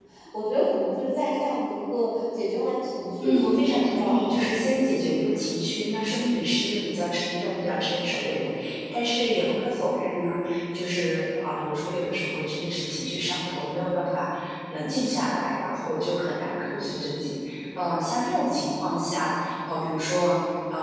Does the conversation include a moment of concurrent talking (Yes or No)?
Yes